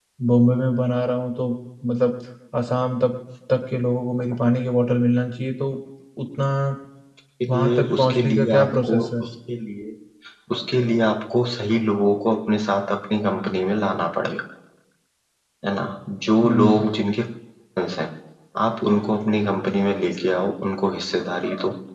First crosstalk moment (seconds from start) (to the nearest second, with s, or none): 7 s